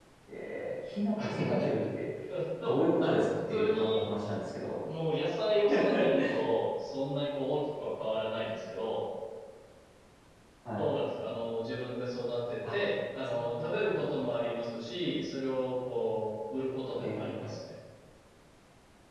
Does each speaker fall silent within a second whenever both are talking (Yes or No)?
No